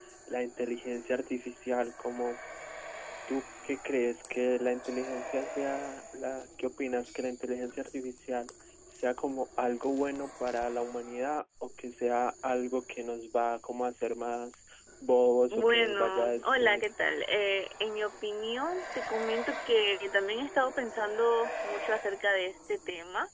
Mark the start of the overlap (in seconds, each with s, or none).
15.5 s